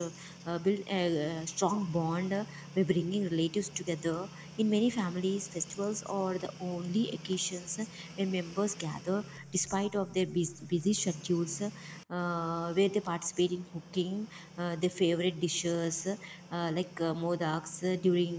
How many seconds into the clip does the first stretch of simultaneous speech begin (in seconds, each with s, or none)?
none